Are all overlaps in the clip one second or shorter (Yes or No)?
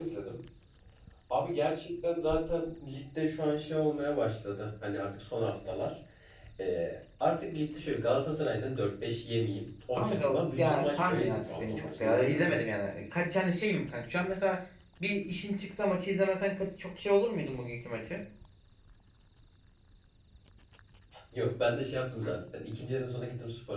No